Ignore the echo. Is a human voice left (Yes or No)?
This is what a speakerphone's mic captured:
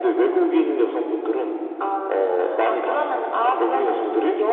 No